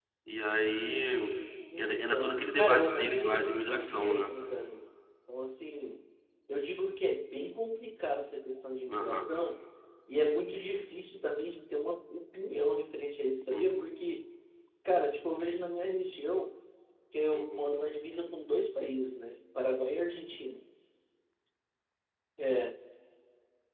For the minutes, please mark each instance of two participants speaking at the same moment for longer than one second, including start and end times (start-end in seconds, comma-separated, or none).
1.8-4.3